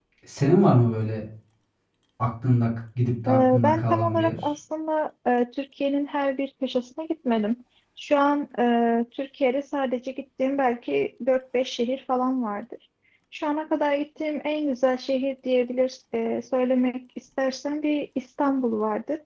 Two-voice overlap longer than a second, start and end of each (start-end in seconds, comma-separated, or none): 3.3-4.5